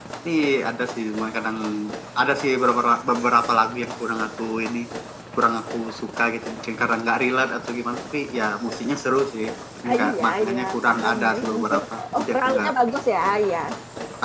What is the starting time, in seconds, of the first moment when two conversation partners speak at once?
10 s

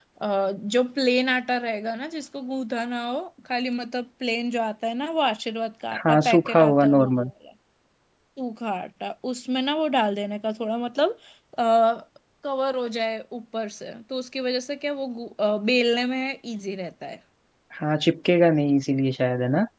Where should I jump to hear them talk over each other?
6 s

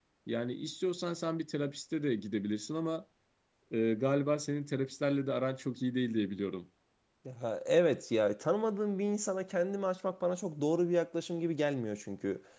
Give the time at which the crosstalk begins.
none

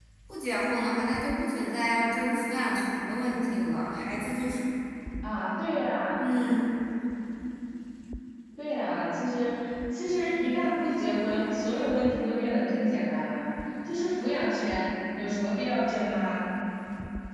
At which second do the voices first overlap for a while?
none

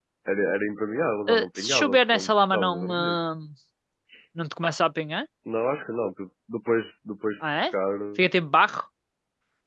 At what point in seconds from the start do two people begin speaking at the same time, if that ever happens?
1 s

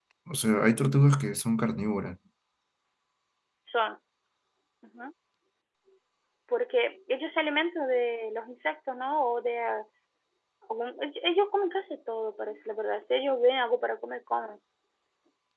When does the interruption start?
none

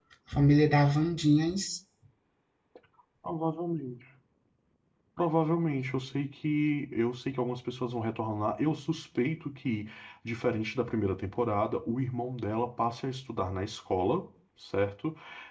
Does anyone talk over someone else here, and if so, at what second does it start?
none

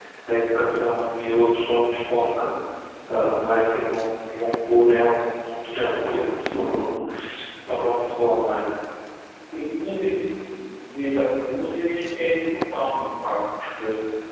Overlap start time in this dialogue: none

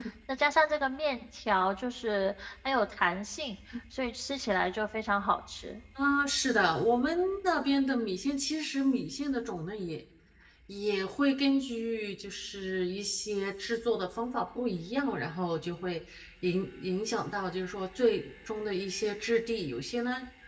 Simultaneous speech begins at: none

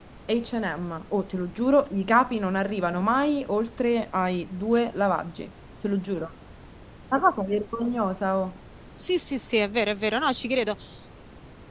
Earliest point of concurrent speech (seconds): none

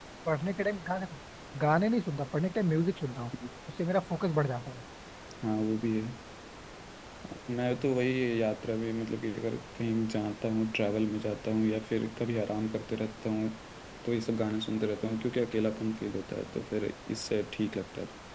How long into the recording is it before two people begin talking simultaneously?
none

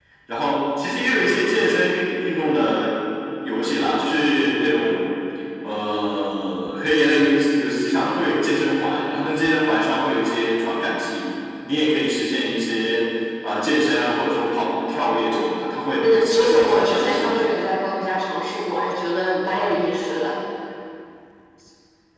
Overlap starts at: 16 s

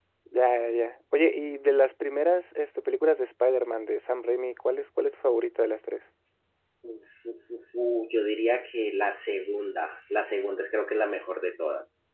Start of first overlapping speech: none

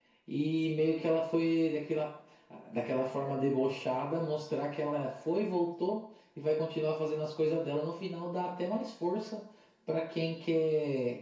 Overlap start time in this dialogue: none

